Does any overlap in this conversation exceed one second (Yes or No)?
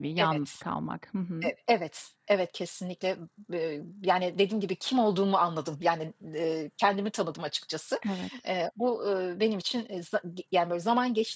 No